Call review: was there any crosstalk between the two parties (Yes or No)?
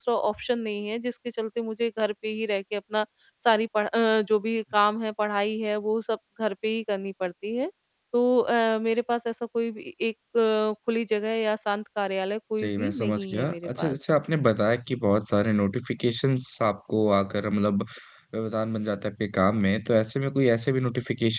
Yes